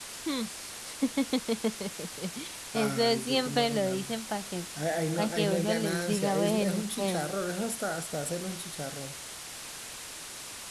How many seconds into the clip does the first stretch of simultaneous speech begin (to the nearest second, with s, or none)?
3 s